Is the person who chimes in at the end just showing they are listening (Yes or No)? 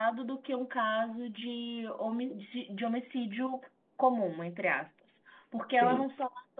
Yes